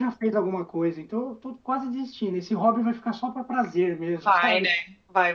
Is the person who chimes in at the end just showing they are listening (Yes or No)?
No